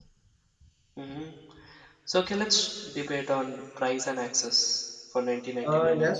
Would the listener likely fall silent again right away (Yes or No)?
No